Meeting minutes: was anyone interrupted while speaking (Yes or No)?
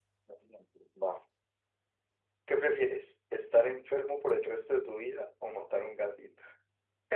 No